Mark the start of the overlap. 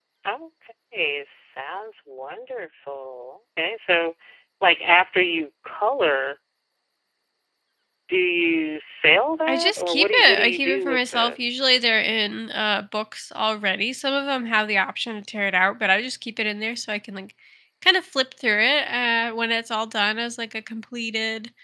9.5 s

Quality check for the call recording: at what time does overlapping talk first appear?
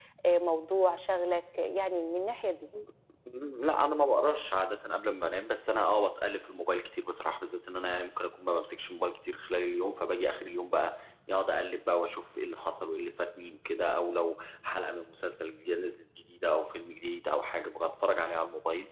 none

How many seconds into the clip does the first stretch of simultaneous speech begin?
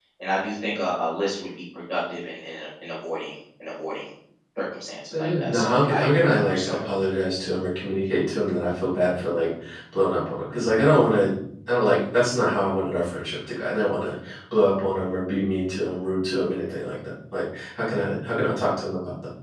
5.2 s

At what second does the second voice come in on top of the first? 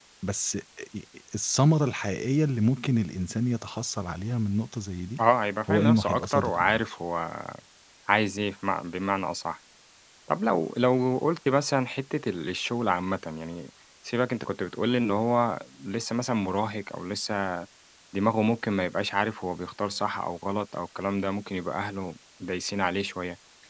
5.7 s

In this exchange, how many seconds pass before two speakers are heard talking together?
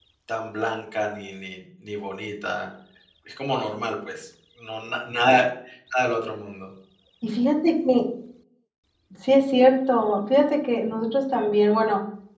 none

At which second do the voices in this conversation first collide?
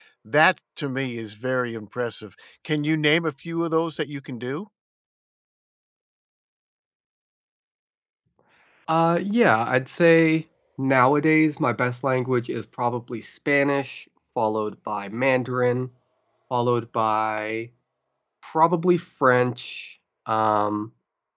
none

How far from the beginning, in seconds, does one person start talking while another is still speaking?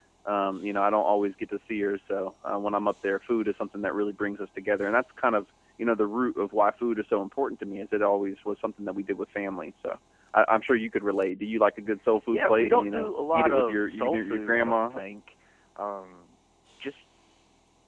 12.3 s

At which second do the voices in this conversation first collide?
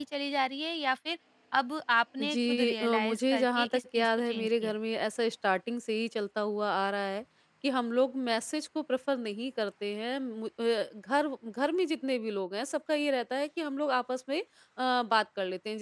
2.2 s

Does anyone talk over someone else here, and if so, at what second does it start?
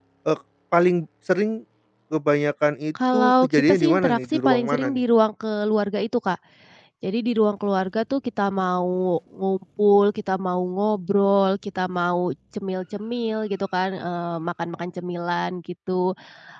3.0 s

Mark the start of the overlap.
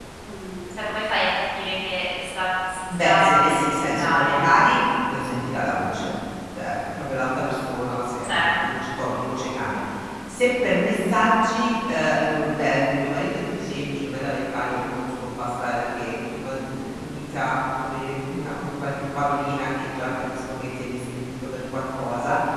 3.0 s

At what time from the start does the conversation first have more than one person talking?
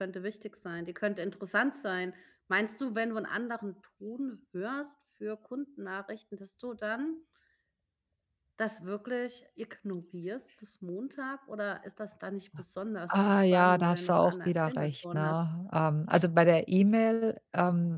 13.1 s

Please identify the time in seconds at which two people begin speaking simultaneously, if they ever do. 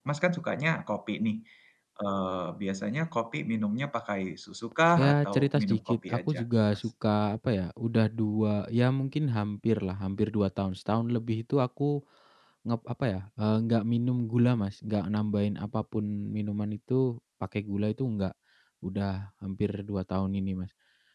5.0 s

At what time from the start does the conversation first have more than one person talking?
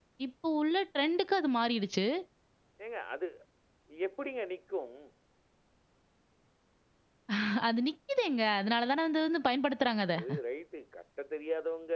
none

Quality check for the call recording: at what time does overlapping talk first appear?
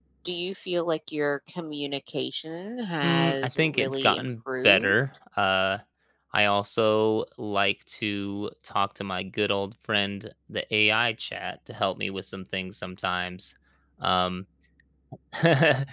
3.0 s

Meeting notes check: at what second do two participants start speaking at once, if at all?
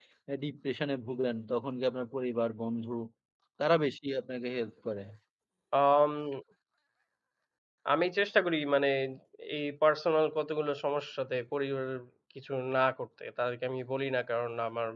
none

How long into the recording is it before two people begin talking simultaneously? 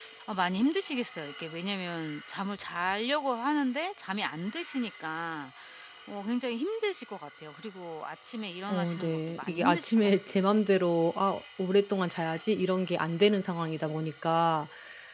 8.7 s

